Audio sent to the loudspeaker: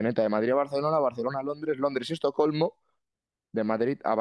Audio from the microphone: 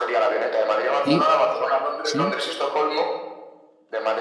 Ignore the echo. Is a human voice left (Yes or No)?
Yes